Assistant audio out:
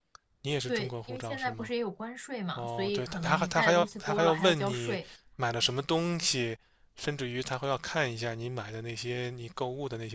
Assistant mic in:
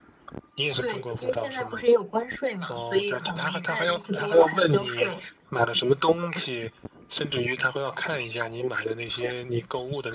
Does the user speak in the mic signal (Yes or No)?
No